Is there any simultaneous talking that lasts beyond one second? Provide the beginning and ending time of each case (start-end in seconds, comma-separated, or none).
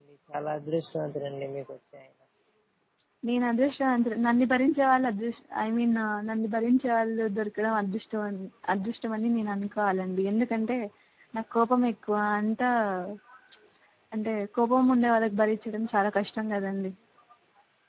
none